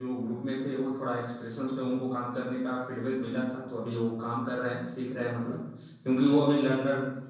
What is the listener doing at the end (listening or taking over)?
listening